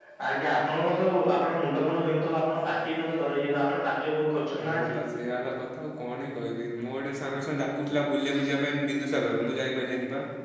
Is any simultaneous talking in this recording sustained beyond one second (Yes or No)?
No